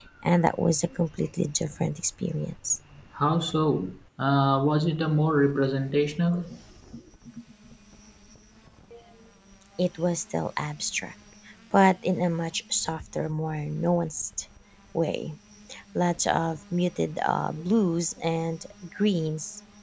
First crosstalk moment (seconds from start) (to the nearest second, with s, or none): none